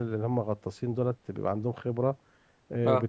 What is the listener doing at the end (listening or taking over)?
listening